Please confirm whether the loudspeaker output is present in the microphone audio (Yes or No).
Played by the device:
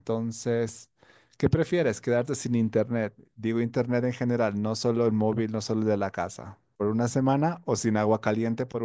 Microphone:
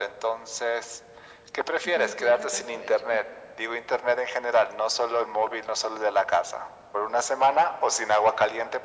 Yes